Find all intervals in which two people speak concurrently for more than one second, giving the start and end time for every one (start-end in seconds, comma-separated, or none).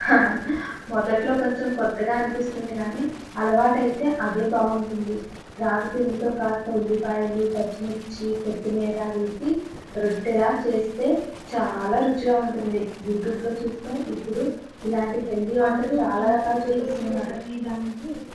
15.7-17.3